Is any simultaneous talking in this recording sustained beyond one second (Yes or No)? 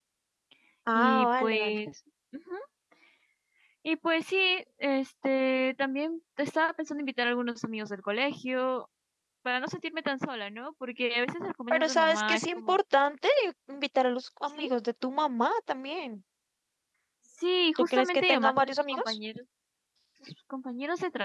Yes